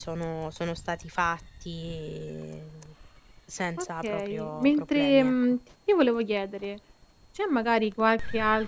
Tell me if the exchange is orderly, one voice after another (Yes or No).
No